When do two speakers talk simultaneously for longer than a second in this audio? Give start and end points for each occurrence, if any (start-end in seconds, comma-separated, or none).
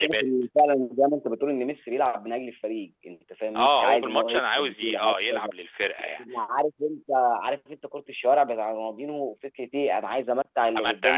3.6-5.5